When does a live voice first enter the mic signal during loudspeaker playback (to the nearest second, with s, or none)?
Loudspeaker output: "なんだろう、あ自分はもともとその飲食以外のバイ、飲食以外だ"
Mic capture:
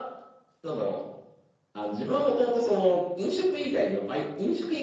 none